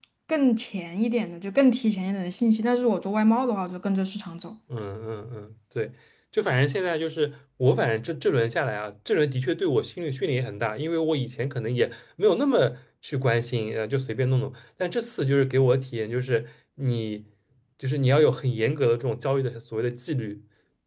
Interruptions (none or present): none